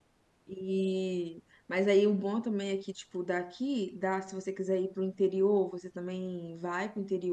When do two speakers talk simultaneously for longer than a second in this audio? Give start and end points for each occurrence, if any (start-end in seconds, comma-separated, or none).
none